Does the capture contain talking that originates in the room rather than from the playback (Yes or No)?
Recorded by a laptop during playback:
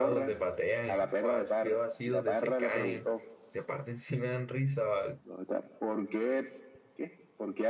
Yes